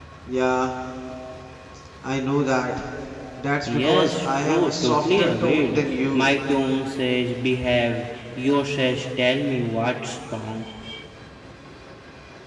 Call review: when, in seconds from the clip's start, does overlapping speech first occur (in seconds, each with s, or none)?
3.7 s